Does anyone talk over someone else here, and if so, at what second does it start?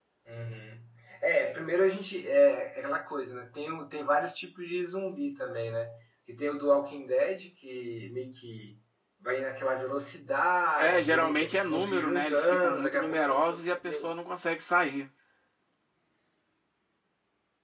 10.8 s

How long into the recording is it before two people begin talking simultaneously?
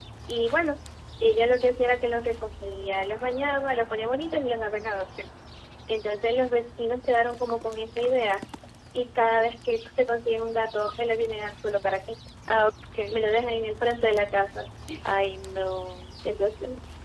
none

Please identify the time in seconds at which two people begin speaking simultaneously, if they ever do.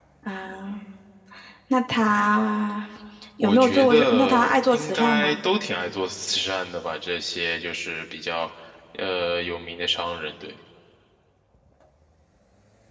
3.4 s

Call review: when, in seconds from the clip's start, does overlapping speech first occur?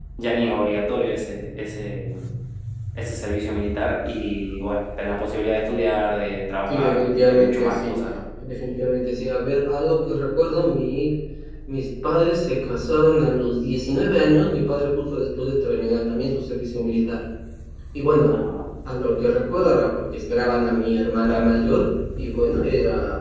6.7 s

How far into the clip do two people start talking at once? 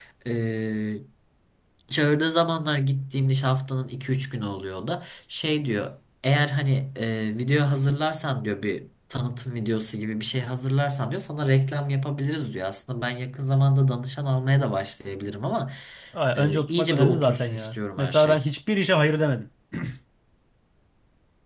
16.4 s

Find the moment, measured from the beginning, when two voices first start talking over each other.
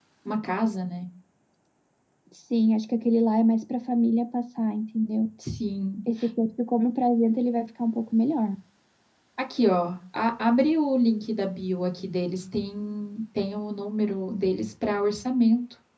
none

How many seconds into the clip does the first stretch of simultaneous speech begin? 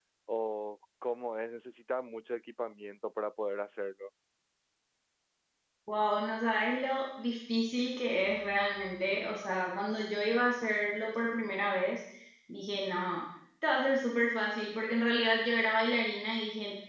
none

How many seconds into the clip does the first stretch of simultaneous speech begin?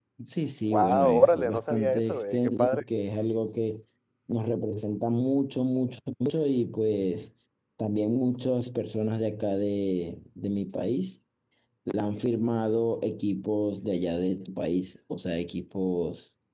0.7 s

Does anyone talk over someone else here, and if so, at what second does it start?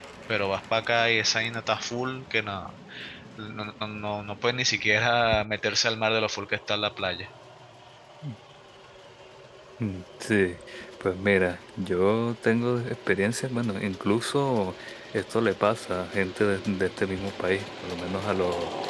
none

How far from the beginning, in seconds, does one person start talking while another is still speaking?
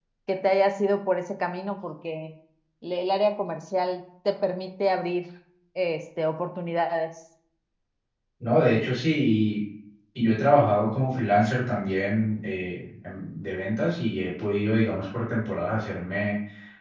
none

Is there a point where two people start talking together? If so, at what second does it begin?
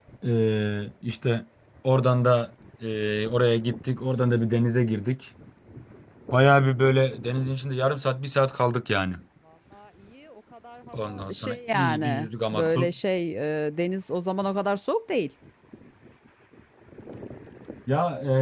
10.9 s

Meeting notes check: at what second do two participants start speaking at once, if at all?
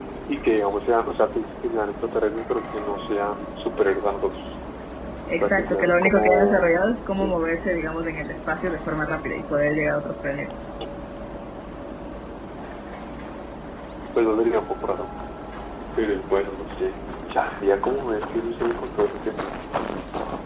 5.4 s

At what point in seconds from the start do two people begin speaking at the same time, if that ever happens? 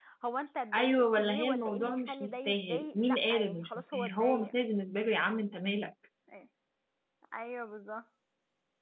0.7 s

